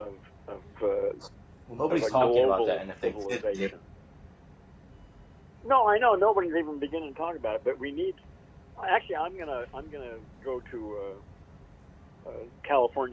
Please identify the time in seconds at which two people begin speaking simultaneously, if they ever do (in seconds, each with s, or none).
1.9 s